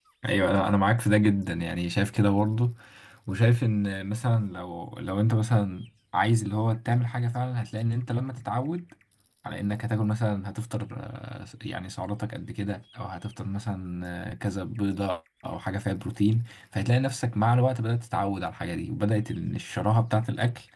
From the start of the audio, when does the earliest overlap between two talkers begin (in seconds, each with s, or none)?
none